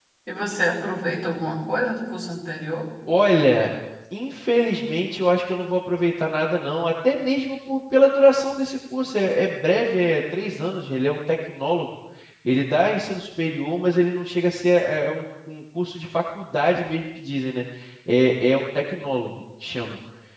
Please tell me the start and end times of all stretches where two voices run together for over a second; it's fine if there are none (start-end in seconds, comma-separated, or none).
none